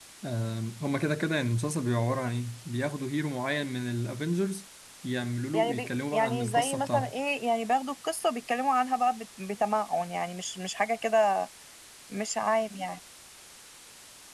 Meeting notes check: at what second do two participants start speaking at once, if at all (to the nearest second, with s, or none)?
6 s